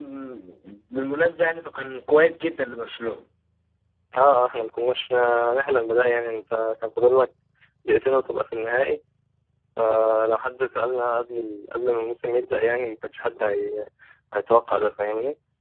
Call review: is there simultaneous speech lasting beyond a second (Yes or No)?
No